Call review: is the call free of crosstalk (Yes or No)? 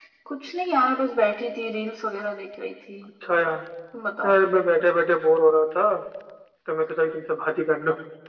Yes